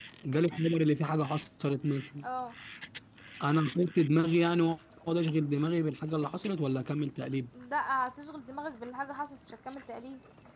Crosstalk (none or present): none